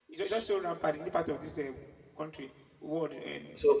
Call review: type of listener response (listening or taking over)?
taking over